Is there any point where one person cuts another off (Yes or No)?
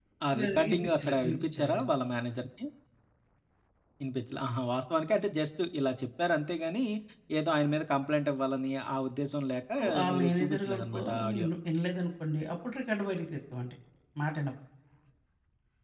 Yes